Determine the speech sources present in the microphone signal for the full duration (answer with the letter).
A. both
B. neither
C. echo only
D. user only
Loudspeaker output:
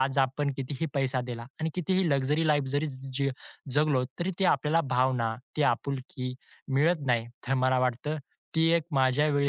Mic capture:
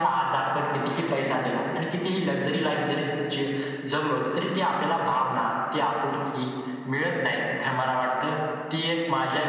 C